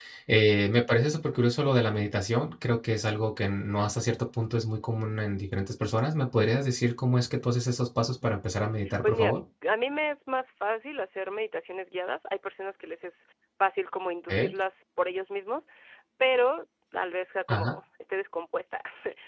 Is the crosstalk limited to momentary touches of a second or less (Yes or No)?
Yes